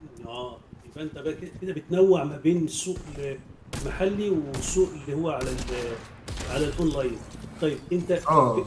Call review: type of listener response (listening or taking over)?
listening